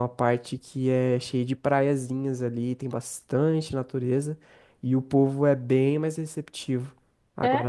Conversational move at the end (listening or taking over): listening